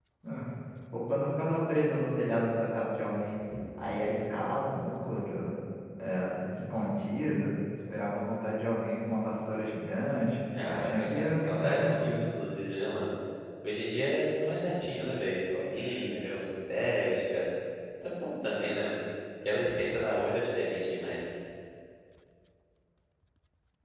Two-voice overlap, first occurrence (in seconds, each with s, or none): 10.5 s